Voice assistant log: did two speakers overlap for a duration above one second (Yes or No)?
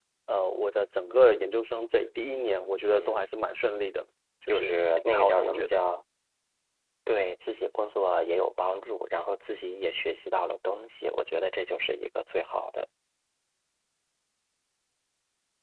Yes